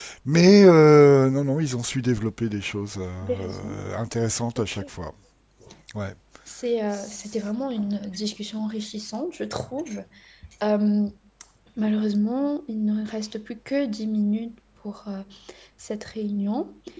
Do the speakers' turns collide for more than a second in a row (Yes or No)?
No